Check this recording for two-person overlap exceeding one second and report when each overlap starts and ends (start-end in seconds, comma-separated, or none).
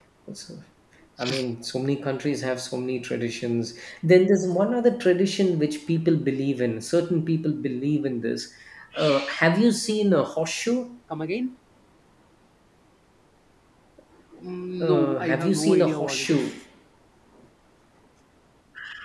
14.8-16.4